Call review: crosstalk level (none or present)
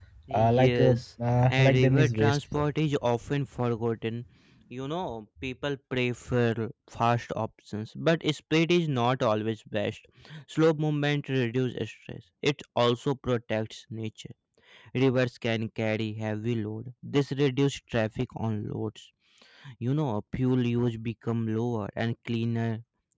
present